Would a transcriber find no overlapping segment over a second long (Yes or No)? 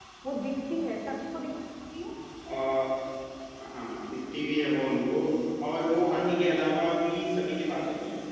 Yes